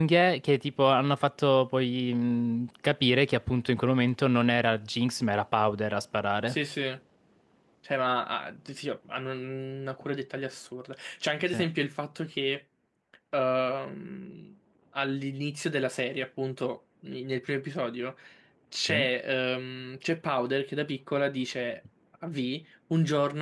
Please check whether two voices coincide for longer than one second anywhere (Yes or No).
No